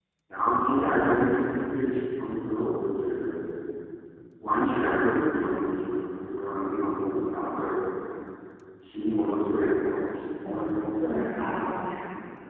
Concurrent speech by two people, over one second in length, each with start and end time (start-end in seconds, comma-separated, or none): 10.4-11.8